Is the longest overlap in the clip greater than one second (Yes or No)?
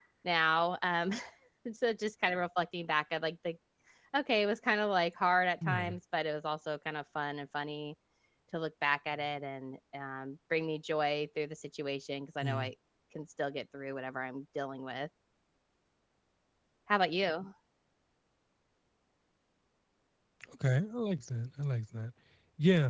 No